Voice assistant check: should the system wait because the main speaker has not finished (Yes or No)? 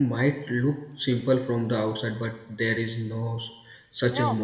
No